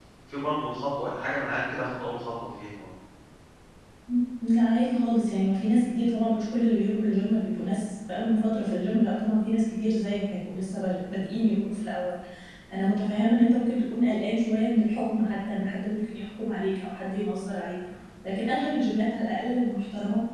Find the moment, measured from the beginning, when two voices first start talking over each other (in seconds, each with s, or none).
none